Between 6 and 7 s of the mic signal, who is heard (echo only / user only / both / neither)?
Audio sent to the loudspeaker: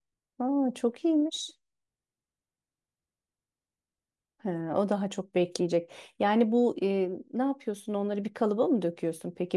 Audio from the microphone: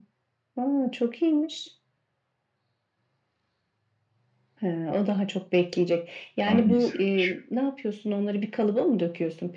both